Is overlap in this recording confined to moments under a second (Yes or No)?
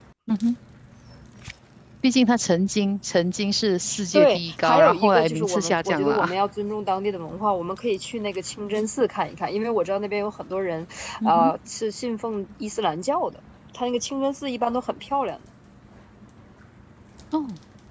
No